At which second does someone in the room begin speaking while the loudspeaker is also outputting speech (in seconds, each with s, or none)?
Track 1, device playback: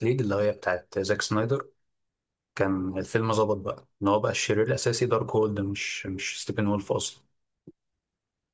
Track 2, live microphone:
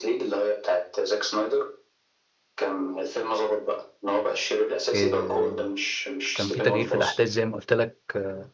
4.9 s